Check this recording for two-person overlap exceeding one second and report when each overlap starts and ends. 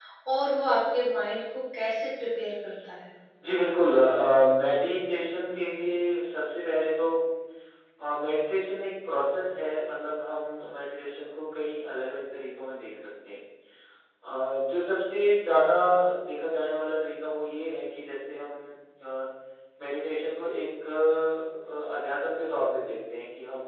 none

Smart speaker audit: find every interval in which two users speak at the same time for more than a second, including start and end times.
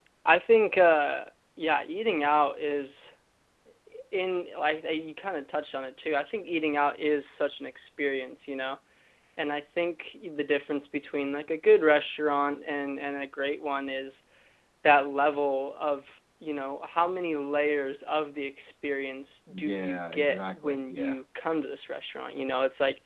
19.6-21.2

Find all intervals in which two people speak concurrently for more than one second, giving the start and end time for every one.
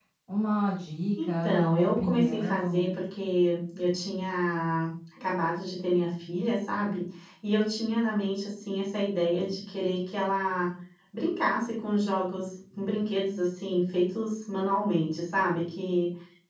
1.2-3.0

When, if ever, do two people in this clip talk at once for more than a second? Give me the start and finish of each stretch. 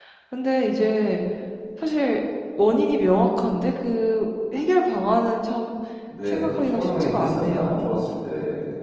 6.3-7.9

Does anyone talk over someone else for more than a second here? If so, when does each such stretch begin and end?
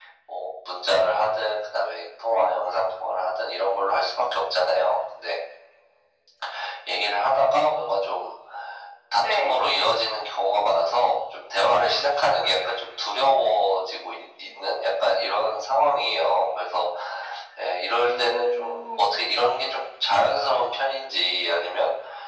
17.9-19.2

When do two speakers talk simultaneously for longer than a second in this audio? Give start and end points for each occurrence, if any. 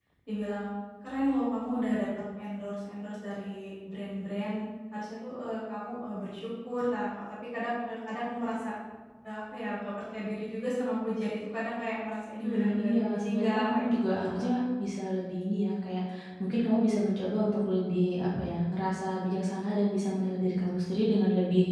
12.4-14.5

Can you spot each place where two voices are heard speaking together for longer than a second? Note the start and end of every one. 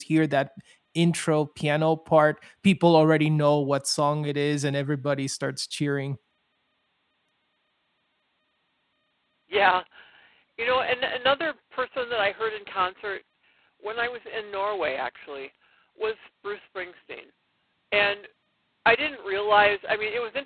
none

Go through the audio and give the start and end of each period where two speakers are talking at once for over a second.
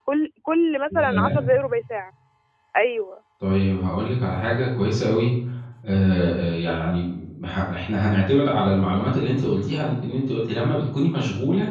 none

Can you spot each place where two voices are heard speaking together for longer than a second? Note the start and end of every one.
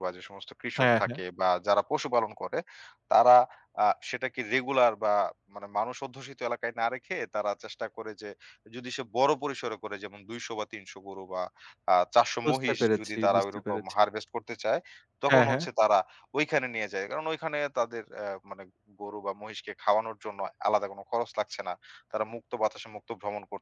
12.4-13.8

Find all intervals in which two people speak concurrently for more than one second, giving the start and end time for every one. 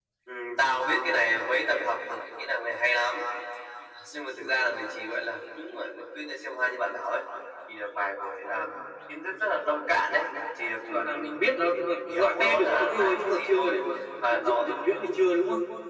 10.9-13.8

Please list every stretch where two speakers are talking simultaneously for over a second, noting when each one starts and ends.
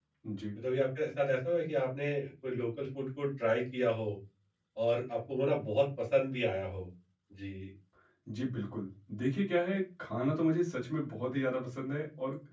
none

